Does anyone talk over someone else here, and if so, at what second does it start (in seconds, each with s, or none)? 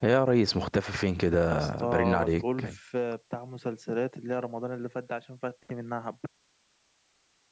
1.5 s